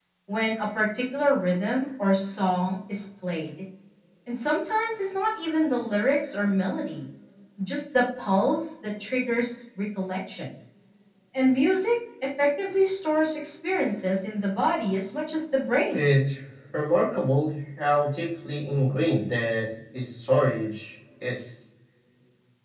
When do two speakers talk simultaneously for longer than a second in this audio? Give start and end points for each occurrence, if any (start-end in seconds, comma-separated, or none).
none